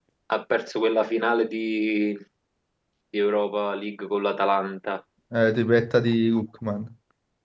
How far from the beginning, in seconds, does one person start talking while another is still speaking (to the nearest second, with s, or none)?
none